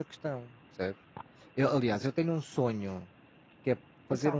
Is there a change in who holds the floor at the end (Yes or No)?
No